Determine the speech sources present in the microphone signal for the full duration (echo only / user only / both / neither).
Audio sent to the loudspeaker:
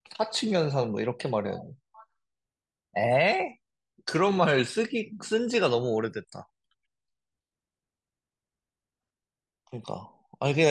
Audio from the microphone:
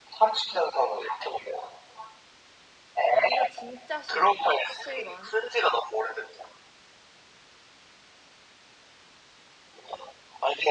both